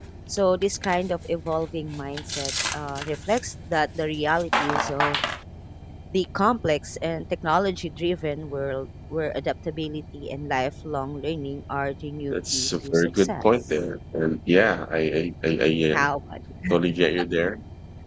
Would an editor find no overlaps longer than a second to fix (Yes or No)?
No